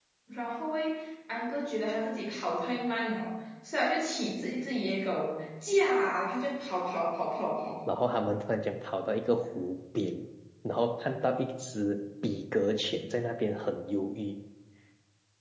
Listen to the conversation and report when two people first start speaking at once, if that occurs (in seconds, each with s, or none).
none